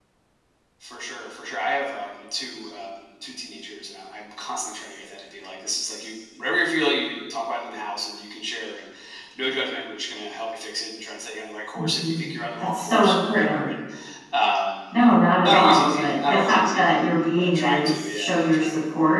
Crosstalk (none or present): present